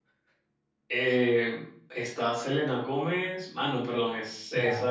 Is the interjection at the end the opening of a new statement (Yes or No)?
Yes